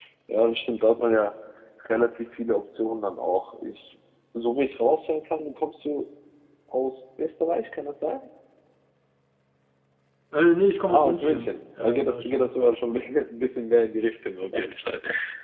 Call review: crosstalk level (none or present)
present